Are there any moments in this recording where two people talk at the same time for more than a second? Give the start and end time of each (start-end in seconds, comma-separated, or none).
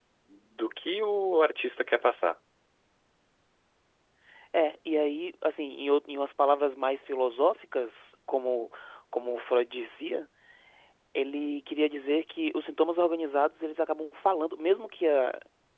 none